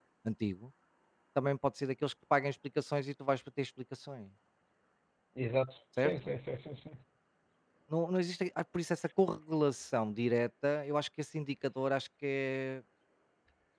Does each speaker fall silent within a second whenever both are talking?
Yes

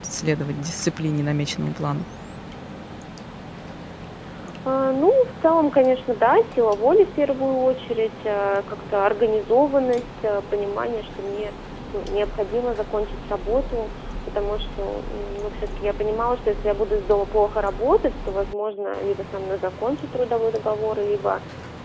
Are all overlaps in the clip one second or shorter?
Yes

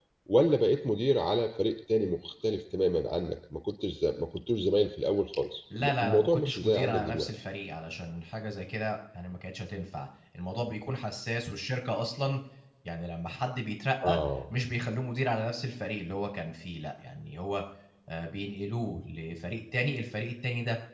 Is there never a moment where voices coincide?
No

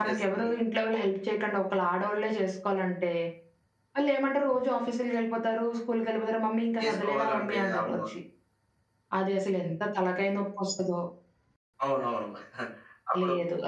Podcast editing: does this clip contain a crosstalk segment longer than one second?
Yes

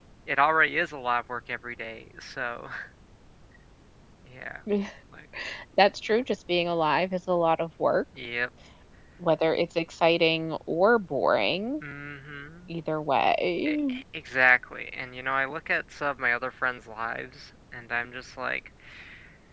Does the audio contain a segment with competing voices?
No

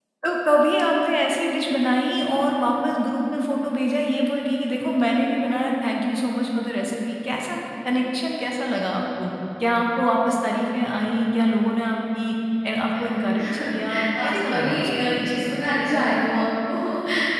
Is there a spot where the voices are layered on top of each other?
Yes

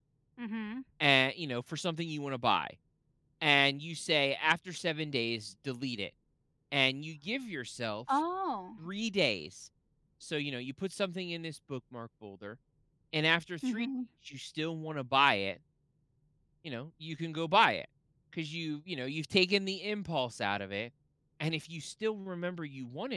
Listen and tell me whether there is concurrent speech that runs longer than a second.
No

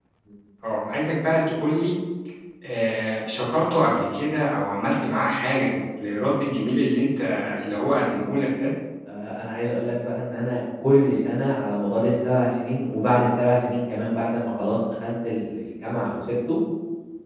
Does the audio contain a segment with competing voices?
No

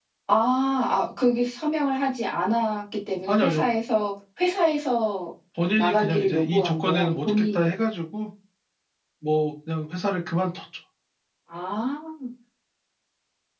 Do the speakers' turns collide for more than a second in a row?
Yes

